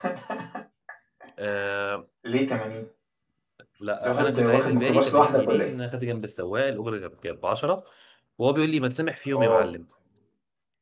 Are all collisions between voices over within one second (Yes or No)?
No